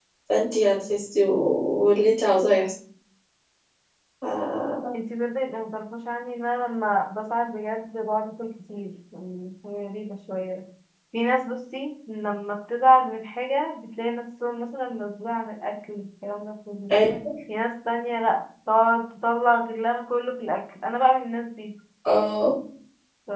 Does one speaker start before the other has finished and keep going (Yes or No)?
No